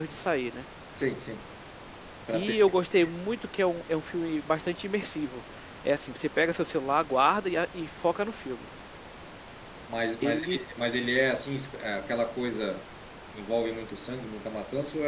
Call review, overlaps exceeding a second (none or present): none